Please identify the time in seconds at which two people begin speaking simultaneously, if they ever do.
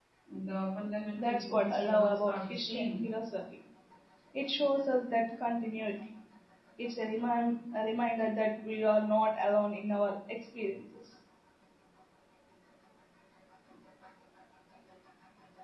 1.2 s

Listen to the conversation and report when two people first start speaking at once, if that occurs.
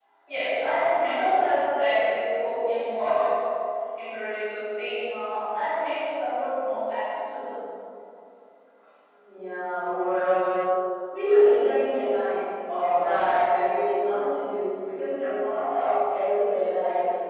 none

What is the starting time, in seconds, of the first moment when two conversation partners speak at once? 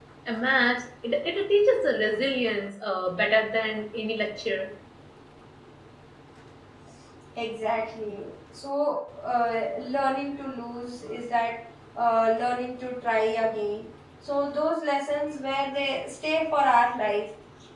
none

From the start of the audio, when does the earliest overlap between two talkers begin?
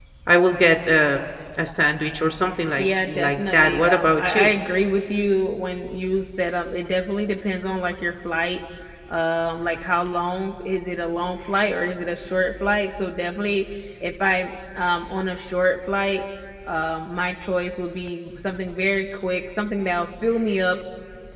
2.8 s

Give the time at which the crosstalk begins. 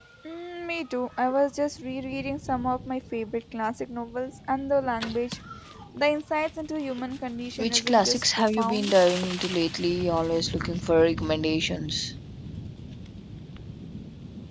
7.6 s

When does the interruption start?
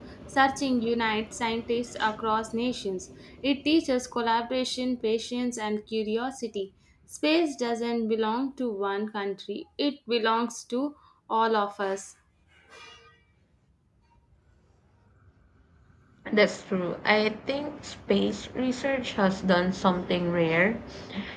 none

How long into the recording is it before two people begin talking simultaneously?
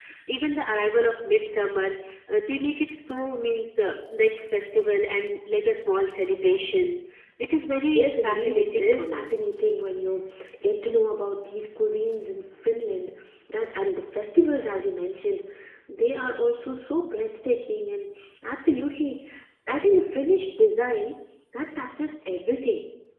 7.9 s

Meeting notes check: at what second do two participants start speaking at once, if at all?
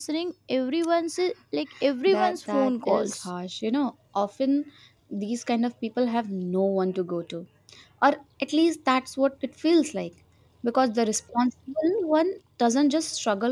2.1 s

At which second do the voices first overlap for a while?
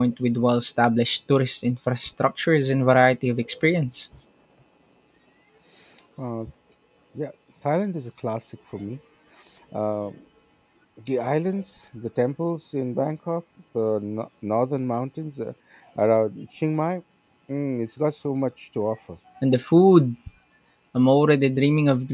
none

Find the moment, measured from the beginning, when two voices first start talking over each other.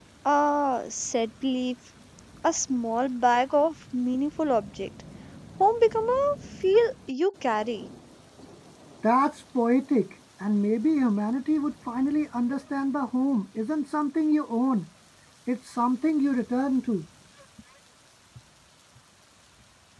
none

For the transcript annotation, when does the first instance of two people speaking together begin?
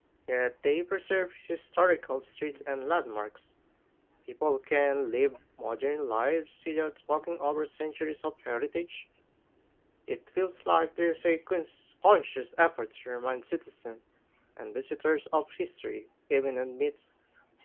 none

